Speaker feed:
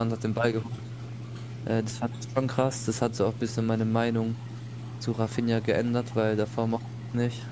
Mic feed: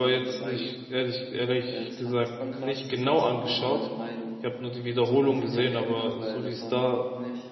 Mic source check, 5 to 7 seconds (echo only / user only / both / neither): both